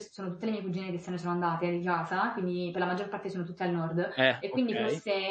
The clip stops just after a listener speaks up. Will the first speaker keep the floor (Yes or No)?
Yes